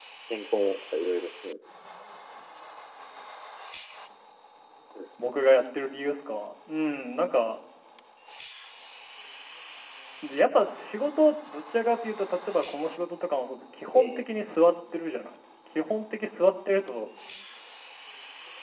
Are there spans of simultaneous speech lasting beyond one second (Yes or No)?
No